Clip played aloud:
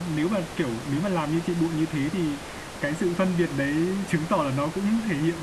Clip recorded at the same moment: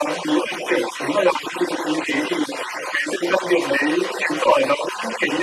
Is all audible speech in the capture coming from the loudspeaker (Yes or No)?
Yes